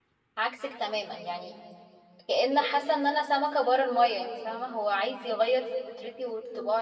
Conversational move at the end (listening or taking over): taking over